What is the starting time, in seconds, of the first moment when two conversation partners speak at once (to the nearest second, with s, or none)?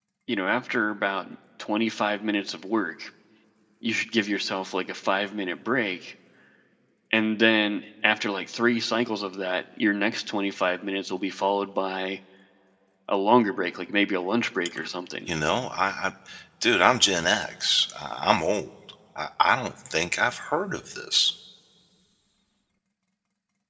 none